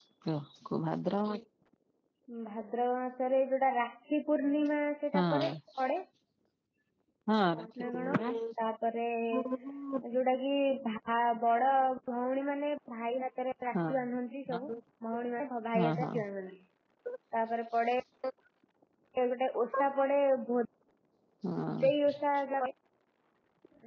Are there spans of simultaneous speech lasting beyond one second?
No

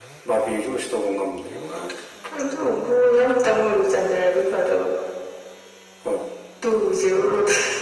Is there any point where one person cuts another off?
No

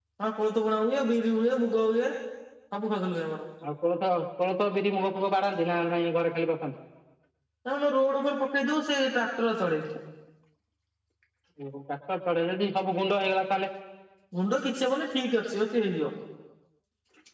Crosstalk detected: No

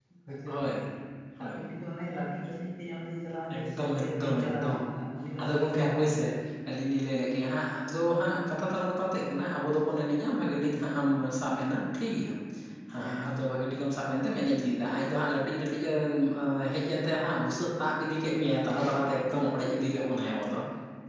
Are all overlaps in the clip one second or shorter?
No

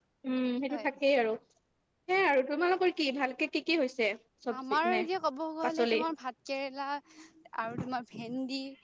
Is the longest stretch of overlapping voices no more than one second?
Yes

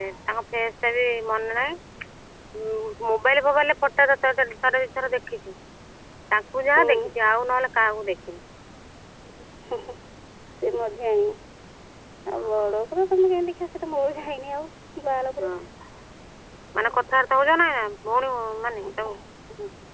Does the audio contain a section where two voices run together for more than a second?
No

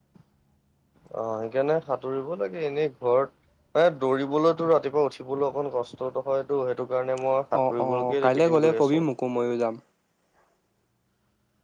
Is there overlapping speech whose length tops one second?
Yes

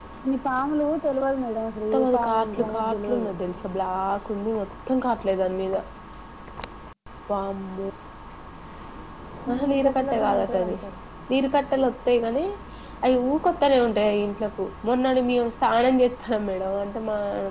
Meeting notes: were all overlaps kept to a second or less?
No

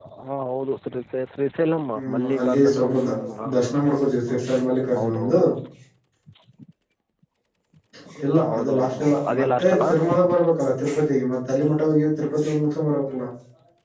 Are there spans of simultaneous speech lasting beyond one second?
Yes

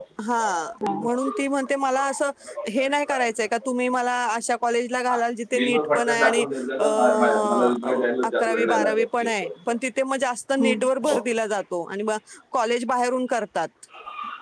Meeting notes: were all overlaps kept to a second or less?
No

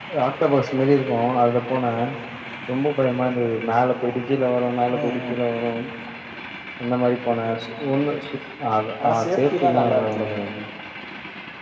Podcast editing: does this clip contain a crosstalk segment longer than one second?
Yes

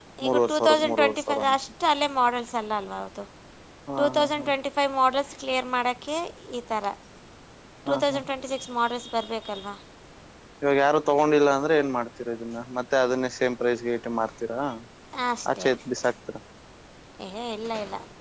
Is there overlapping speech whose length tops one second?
Yes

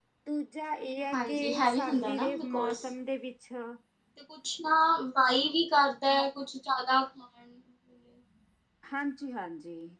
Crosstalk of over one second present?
Yes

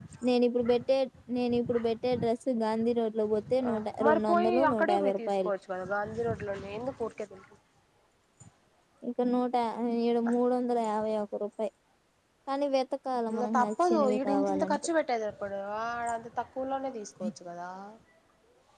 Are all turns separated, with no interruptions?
No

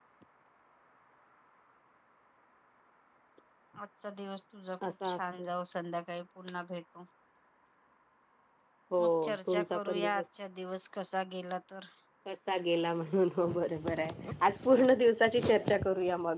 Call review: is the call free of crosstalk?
No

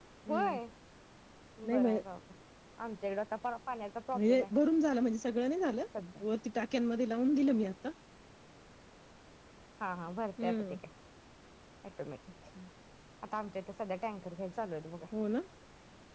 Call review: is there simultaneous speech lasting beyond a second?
No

